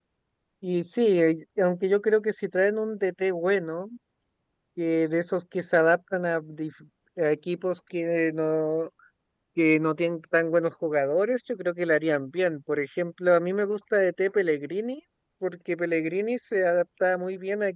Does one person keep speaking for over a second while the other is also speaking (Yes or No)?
No